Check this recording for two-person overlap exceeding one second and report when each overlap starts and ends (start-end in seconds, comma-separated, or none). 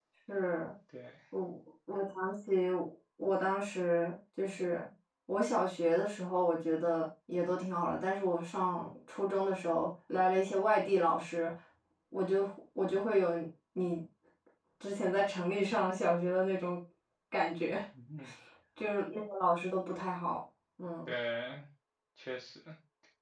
none